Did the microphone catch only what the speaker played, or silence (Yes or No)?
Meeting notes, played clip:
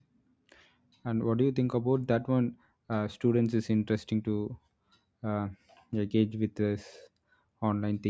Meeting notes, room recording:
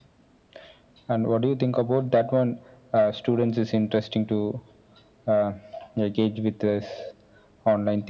Yes